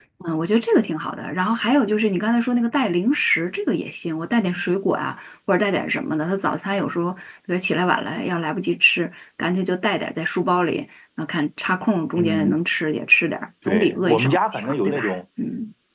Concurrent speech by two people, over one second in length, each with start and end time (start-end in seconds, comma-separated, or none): 13.7-15.2